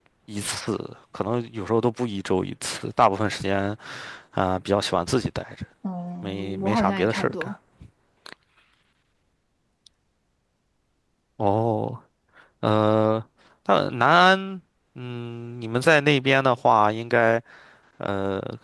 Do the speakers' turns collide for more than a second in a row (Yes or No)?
Yes